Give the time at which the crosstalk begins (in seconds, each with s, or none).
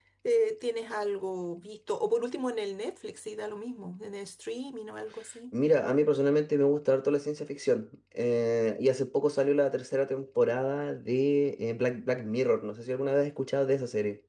none